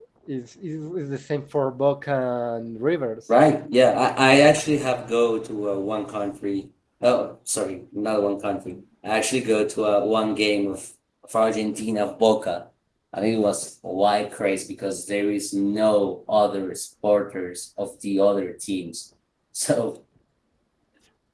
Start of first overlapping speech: none

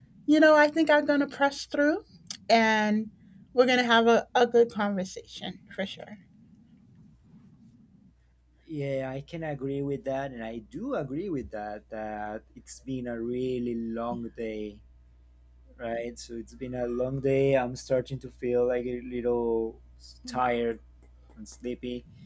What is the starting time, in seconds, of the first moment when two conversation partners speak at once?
none

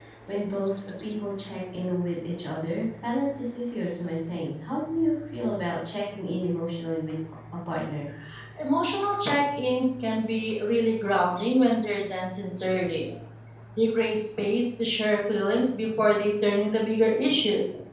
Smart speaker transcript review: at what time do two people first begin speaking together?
none

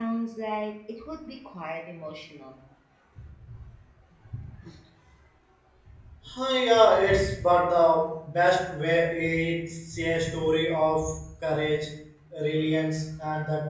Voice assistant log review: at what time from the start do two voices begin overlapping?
none

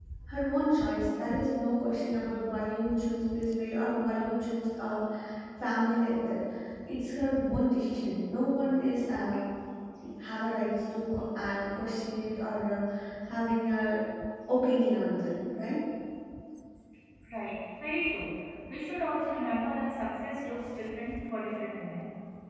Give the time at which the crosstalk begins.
none

